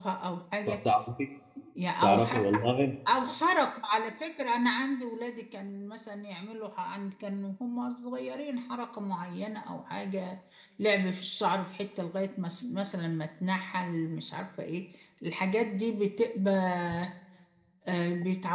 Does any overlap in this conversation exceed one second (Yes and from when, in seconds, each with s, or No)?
No